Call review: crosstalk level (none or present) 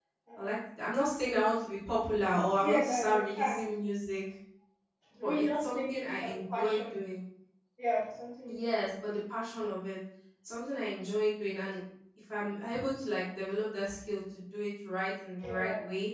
present